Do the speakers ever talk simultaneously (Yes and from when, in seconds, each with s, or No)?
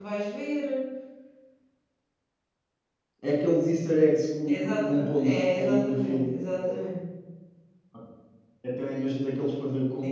Yes, from 4.5 s